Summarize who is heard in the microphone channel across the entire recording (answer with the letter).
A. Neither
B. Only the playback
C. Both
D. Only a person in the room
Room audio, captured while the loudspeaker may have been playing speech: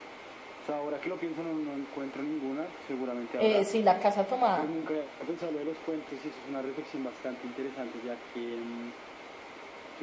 C